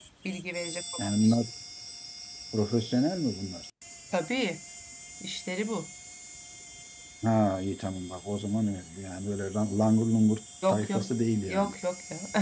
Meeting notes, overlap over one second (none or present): none